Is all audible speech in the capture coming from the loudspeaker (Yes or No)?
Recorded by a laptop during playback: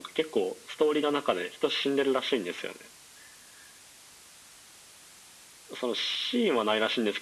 Yes